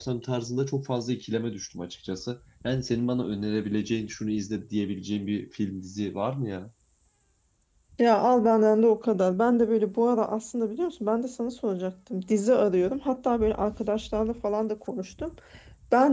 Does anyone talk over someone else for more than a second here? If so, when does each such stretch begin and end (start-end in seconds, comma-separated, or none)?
none